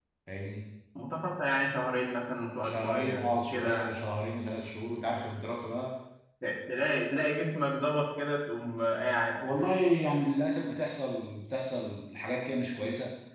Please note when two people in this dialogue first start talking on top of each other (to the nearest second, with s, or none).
3 s